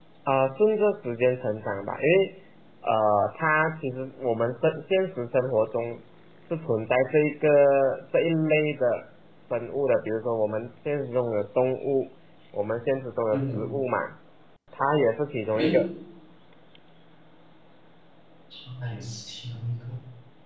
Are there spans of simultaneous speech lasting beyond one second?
No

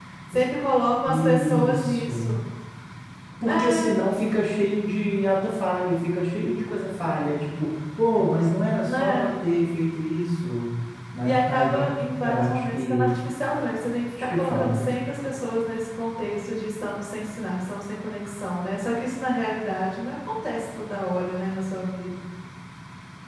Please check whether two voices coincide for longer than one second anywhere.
Yes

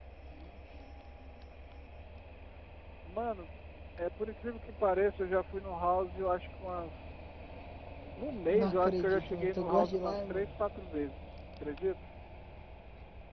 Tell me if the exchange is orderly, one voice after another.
No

